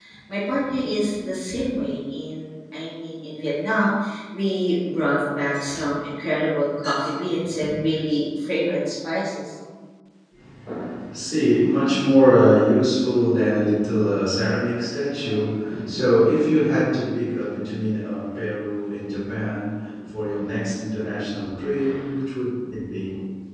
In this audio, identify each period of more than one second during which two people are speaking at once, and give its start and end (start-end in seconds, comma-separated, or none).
none